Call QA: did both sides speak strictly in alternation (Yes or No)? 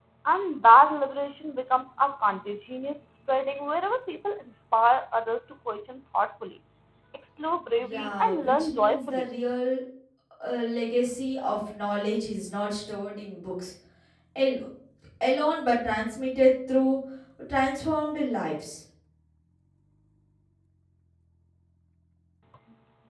No